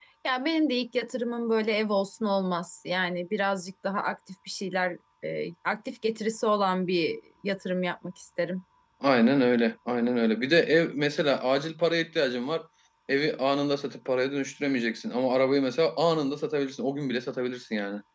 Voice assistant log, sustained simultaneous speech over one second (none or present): none